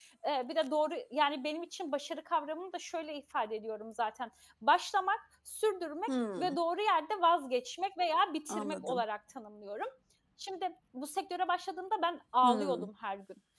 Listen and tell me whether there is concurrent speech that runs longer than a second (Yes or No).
No